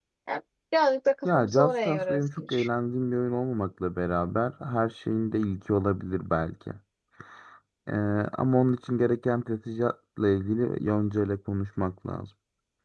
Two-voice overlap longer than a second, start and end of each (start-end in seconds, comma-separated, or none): 1.2-2.7